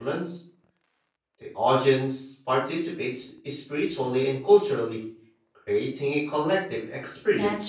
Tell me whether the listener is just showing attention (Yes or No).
No